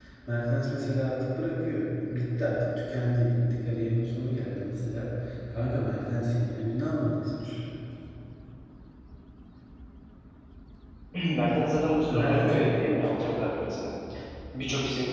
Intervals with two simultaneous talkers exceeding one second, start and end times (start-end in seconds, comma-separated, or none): 11.8-13.2